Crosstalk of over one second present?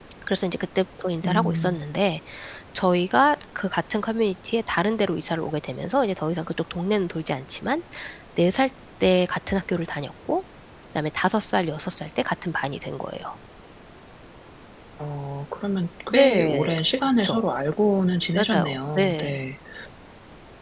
Yes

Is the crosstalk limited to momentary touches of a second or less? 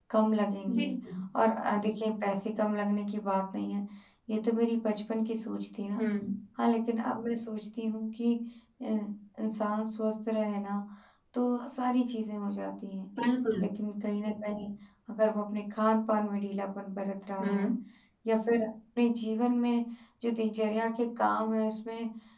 Yes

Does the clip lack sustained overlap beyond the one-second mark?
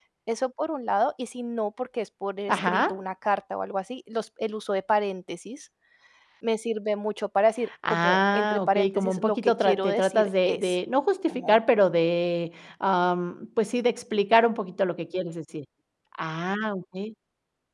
No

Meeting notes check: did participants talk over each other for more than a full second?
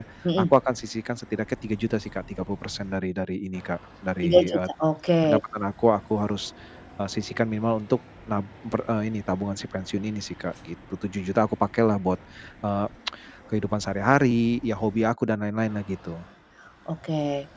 No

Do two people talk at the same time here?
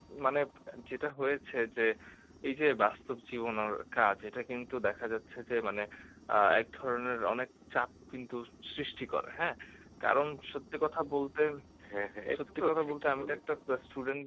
Yes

